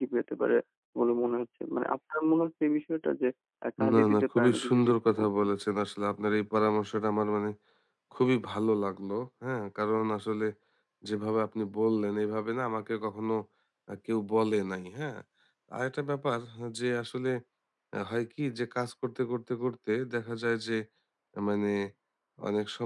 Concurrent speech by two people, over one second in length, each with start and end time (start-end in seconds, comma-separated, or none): 3.9-5.5